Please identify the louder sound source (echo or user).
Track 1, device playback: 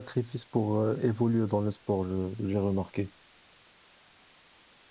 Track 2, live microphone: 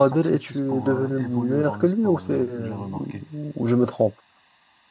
user